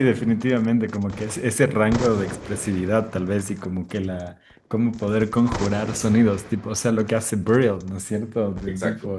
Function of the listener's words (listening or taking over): listening